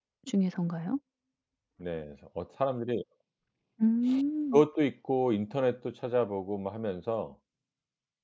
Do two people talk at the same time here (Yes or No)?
No